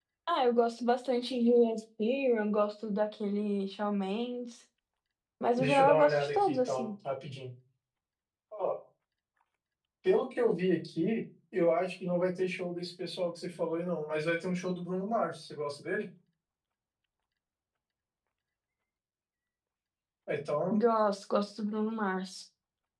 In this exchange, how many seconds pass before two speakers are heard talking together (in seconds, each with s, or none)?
5.6 s